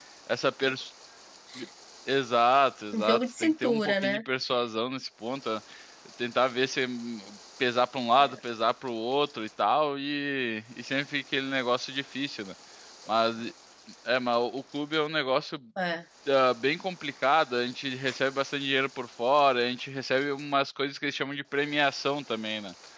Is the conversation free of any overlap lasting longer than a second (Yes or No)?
No